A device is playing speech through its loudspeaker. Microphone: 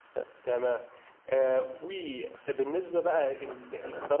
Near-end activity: none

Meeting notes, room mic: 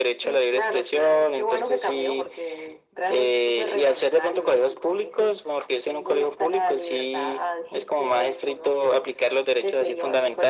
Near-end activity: none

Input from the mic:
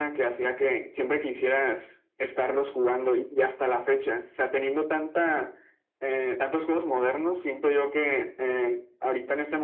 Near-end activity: none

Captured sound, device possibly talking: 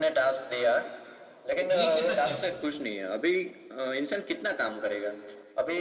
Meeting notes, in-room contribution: present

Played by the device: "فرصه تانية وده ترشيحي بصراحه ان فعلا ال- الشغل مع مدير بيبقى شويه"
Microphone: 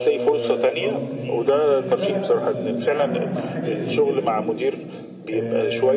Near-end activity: present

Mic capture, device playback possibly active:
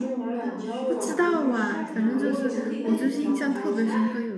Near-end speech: present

